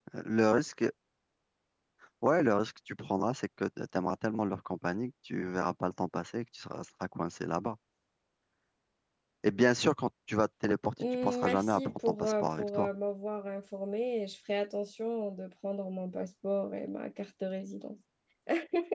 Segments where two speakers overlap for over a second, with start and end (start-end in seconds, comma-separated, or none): 11.2-12.9